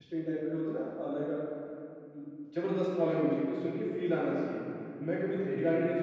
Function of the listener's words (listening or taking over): listening